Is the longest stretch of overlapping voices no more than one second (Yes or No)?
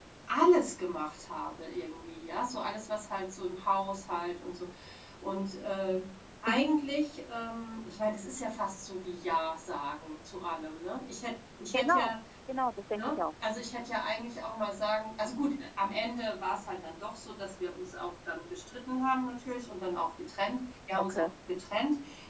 Yes